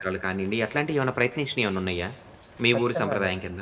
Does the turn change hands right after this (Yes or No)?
Yes